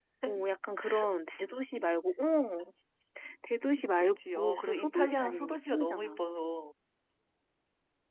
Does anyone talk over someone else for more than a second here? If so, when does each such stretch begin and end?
4.0-6.2

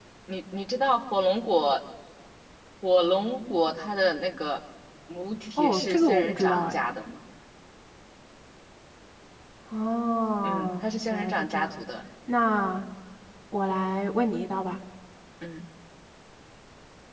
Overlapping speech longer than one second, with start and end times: 5.6-6.8, 10.4-11.8

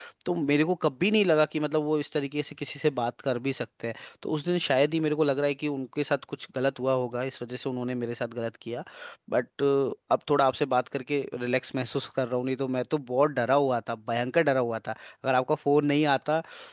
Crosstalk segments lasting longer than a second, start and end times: none

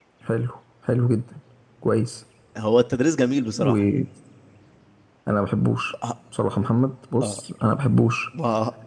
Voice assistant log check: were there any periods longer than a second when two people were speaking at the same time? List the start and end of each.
none

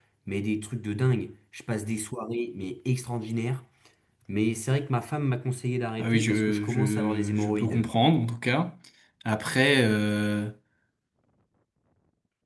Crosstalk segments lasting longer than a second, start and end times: 6.0-7.9

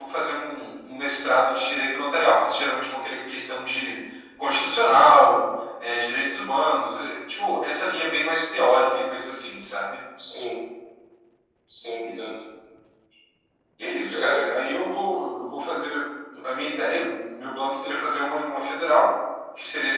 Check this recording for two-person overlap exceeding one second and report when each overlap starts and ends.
none

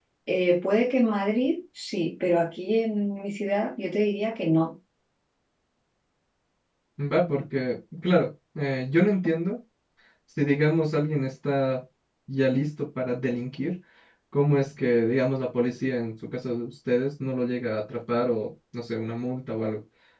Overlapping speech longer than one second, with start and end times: none

